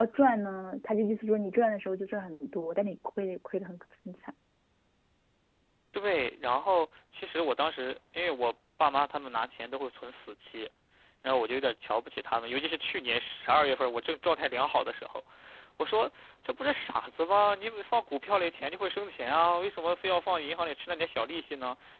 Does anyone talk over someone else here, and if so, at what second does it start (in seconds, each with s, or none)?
none